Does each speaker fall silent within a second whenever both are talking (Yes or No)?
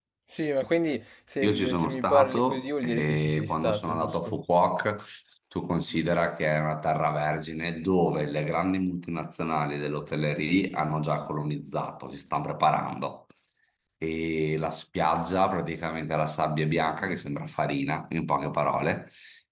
No